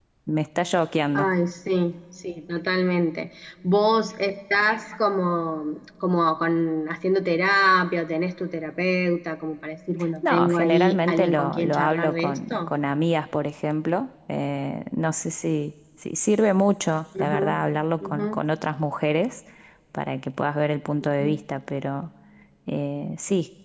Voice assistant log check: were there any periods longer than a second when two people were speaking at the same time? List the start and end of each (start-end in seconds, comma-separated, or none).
10.3-12.7